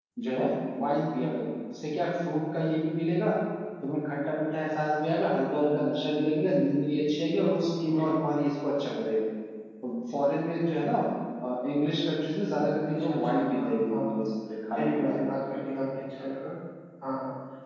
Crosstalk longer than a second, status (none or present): present